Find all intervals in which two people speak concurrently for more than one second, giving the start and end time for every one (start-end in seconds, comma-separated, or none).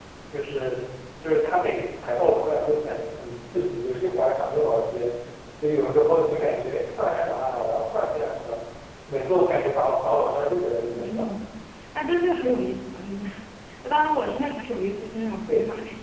none